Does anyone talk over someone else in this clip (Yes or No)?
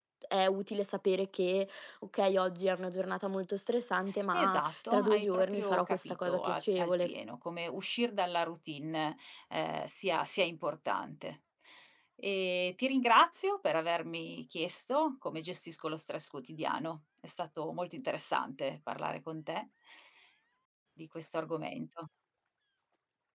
Yes